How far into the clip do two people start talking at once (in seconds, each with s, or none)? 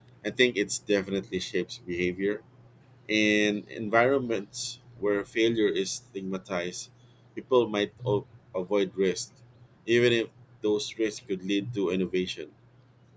none